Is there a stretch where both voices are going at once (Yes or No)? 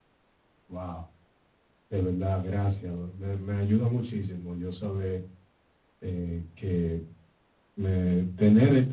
No